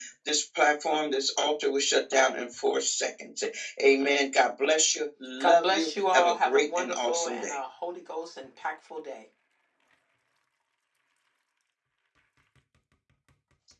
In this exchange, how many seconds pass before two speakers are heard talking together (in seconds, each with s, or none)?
5.4 s